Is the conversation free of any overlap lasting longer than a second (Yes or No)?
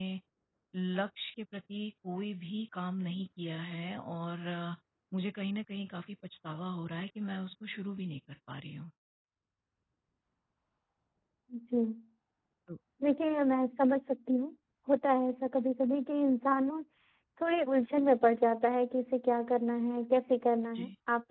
Yes